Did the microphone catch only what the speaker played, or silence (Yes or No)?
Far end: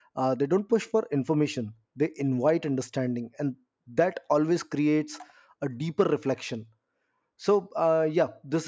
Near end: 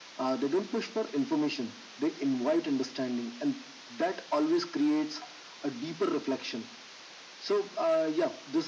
Yes